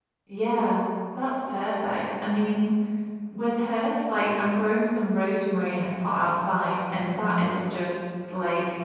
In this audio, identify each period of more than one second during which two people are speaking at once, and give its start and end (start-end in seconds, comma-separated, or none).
none